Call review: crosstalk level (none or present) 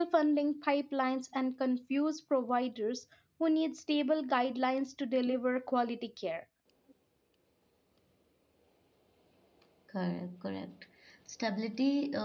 none